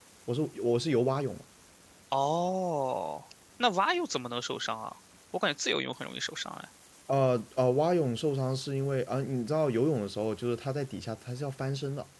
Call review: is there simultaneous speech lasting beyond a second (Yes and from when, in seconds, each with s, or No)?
No